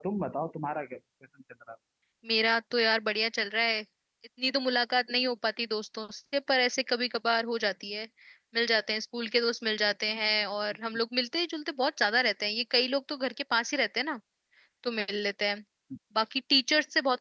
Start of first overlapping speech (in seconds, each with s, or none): none